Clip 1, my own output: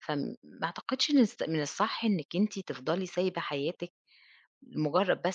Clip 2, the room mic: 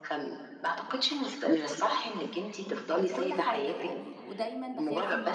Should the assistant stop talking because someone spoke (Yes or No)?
Yes